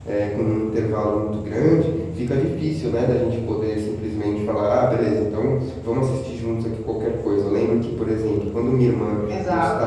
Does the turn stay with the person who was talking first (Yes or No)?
Yes